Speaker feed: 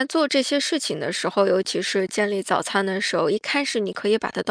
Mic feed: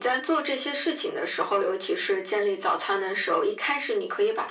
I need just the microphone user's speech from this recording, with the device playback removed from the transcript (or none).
none